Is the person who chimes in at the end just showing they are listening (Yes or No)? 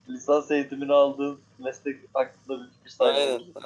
No